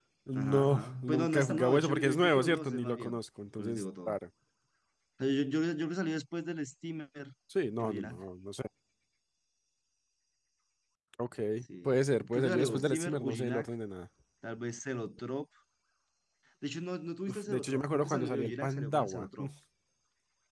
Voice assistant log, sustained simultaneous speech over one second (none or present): present